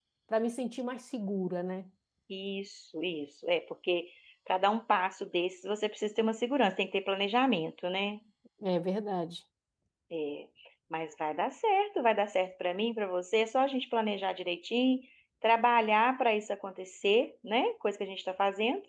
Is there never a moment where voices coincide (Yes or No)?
Yes